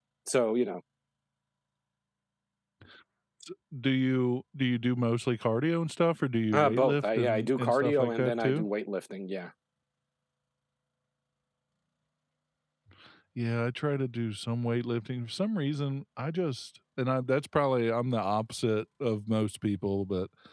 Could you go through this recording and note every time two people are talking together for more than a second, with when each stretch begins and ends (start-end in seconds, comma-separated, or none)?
6.5-8.7